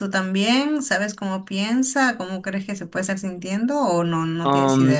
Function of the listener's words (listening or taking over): taking over